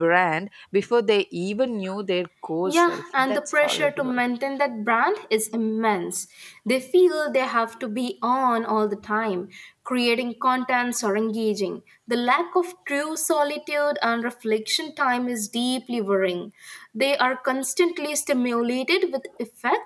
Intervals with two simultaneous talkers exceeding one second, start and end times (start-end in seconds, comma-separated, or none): 2.6-4.2